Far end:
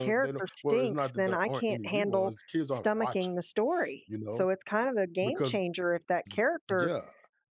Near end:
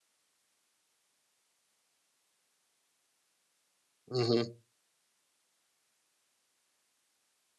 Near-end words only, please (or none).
mhm,